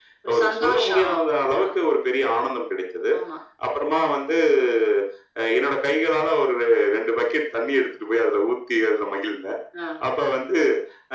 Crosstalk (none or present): present